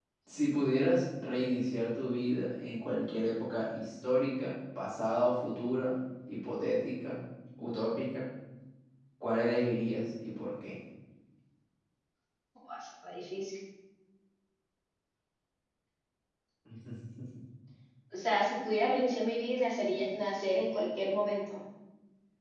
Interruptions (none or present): none